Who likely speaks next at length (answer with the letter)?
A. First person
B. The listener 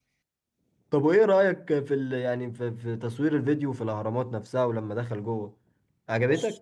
B